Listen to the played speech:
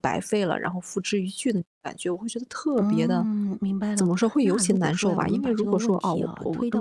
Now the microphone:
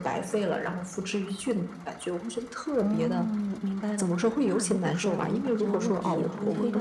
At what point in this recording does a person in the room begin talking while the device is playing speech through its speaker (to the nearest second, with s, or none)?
6 s